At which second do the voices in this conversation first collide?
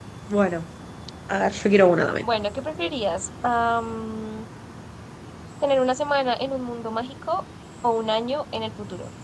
none

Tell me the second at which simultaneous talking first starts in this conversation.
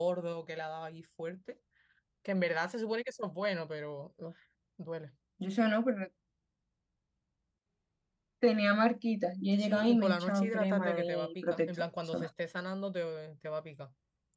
10 s

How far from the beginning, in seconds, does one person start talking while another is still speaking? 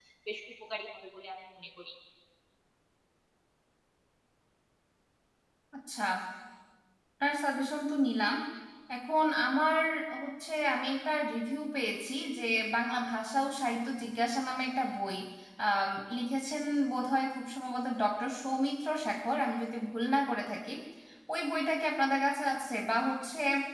none

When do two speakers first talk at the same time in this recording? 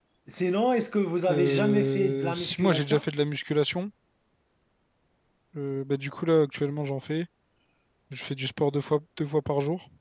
1 s

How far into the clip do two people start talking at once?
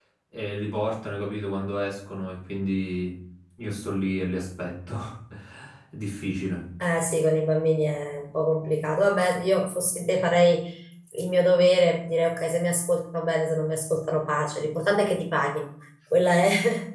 none

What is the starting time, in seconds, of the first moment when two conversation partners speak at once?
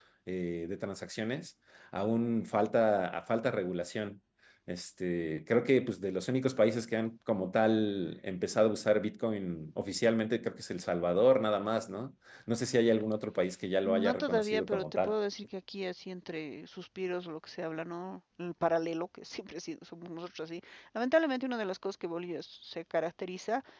14 s

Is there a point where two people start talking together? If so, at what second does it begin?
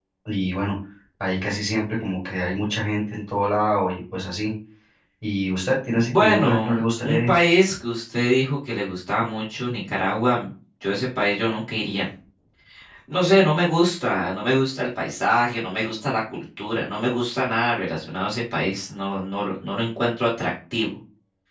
6 s

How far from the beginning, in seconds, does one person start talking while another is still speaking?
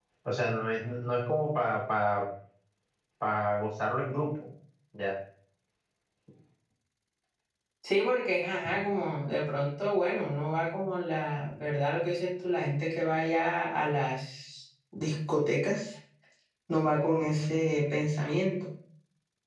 none

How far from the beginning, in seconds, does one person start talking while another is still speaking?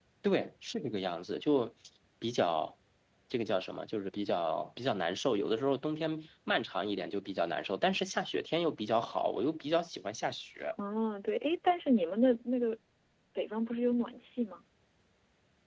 none

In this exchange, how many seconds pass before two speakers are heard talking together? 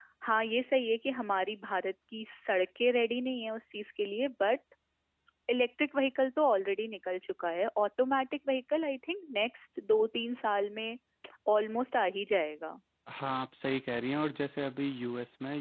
none

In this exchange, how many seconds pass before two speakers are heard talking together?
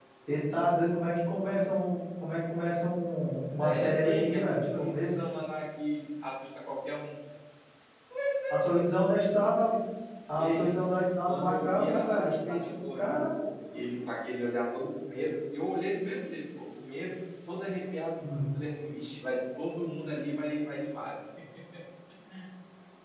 4 s

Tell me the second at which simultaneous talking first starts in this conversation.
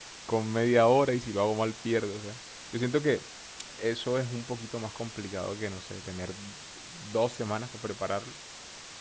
none

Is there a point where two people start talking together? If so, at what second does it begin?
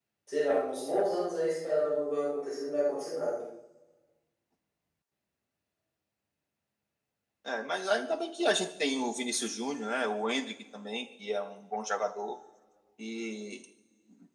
none

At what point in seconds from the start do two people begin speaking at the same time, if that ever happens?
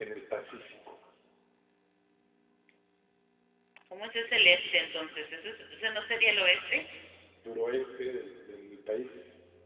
none

